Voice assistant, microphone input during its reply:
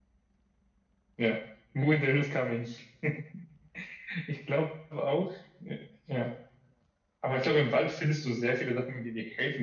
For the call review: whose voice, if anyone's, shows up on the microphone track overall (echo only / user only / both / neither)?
echo only